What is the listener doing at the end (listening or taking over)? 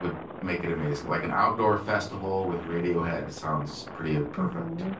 taking over